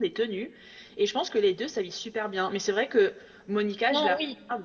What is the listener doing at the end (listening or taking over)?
listening